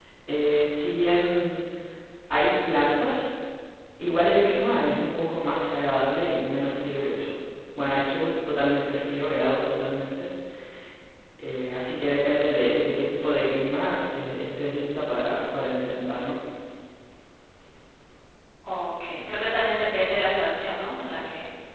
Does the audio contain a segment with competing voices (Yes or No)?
No